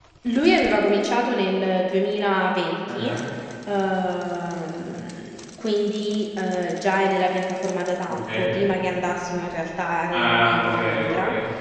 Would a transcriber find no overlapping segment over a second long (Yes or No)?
No